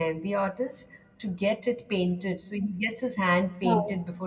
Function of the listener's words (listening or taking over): listening